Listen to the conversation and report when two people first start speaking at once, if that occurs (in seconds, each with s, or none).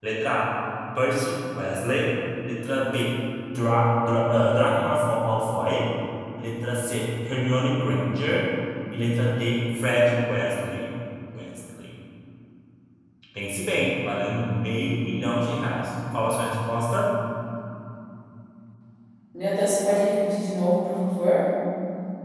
none